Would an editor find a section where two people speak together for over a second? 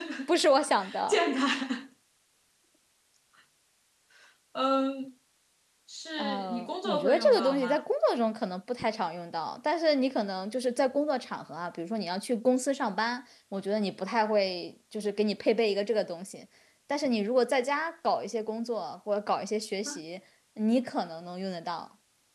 Yes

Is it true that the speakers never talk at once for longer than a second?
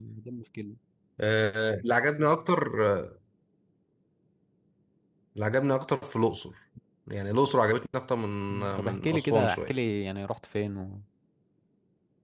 No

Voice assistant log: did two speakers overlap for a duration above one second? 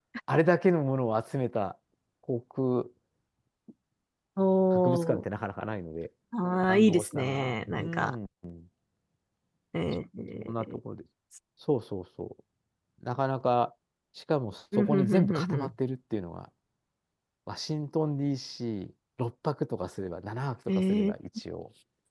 Yes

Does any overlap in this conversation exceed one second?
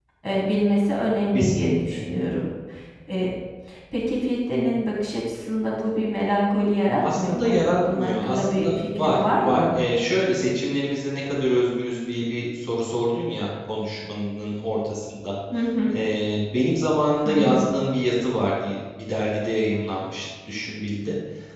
Yes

